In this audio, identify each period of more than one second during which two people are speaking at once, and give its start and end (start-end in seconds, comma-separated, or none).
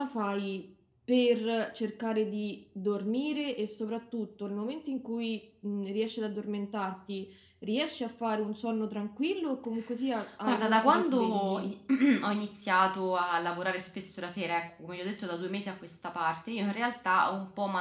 10.4-11.7